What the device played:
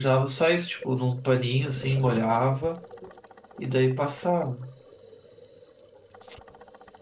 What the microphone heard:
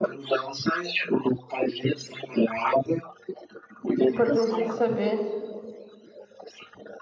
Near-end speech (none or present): present